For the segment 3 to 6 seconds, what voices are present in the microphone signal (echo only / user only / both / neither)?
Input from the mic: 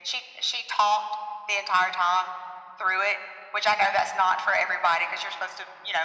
echo only